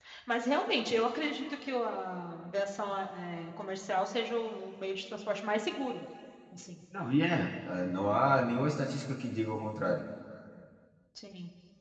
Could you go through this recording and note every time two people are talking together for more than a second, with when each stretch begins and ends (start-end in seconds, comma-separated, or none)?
none